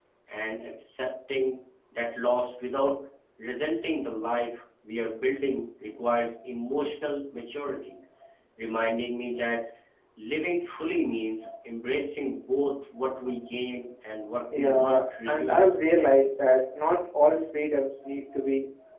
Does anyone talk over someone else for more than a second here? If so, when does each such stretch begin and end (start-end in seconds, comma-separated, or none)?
14.6-15.8